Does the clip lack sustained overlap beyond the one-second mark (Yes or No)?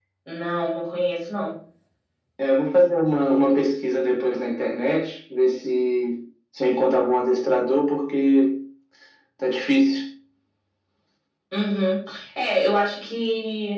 Yes